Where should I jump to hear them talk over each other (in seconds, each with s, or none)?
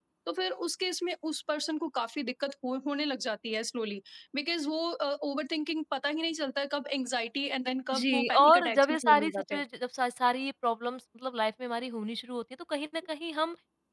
7.9 s